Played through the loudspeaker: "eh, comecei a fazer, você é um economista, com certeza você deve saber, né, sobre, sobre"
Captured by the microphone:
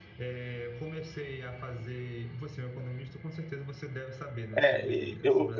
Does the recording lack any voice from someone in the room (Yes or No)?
No